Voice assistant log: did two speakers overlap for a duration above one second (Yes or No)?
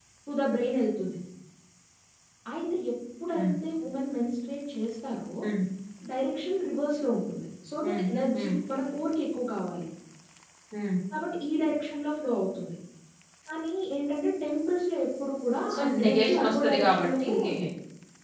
Yes